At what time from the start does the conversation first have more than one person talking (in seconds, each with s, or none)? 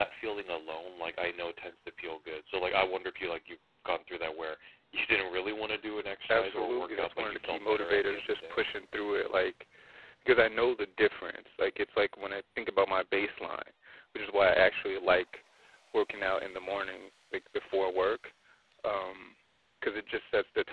6.3 s